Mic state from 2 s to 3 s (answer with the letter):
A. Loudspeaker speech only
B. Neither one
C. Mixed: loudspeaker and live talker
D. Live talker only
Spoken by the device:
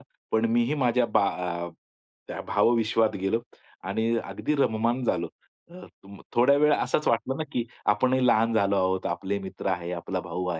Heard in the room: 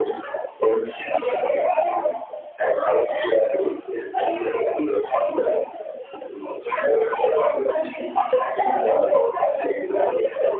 A